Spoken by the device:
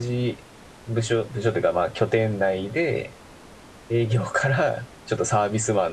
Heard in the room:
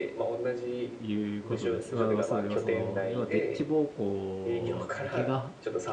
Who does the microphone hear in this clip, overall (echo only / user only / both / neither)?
both